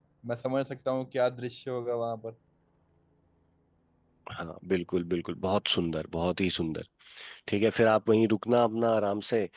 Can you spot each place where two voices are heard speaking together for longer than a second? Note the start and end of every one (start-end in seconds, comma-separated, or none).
none